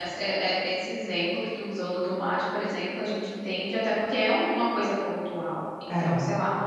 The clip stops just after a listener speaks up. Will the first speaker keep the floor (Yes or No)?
Yes